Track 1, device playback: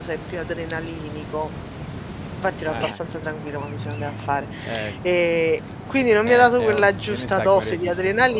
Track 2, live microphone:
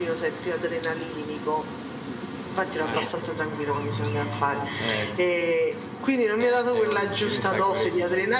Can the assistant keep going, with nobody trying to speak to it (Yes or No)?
Yes